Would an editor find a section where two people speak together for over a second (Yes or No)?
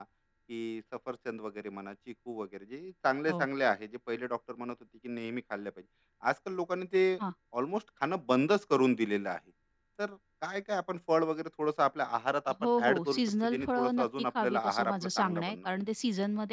Yes